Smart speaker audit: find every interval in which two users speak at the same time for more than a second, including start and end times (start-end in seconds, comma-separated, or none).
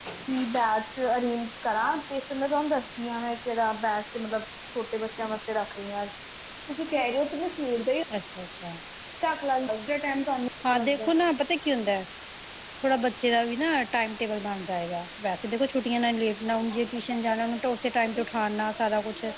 none